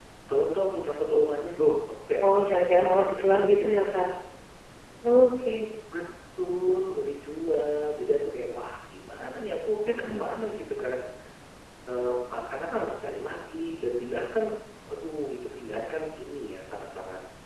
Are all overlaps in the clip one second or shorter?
No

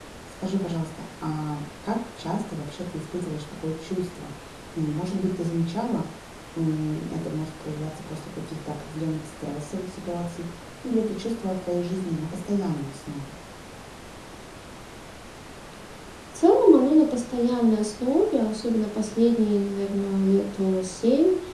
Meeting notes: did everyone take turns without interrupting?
Yes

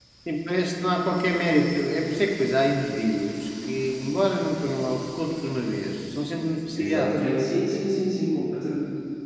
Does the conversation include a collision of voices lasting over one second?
No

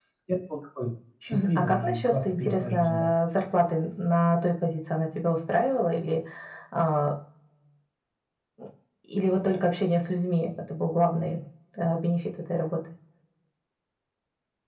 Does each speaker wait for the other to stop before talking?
No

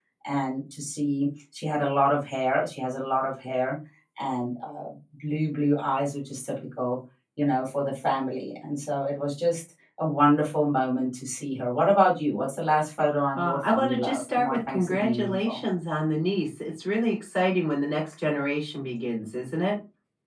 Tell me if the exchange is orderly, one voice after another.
No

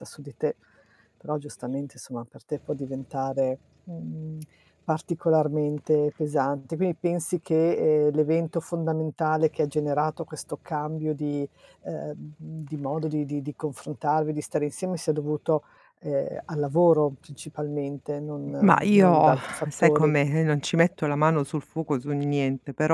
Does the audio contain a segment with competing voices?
Yes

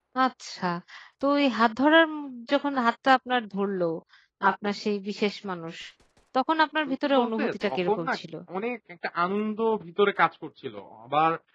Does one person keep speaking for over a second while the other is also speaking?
Yes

